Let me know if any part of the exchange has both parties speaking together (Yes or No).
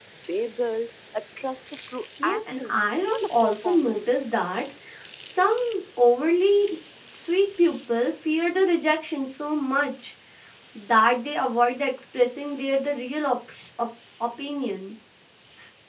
Yes